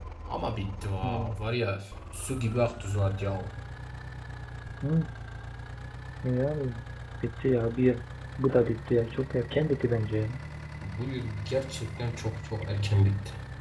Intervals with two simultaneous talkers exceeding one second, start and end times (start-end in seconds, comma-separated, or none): none